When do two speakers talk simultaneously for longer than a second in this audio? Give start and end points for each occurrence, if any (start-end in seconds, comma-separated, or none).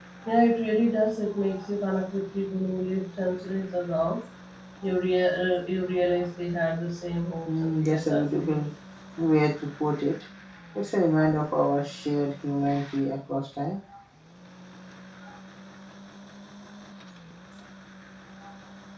7.4-8.7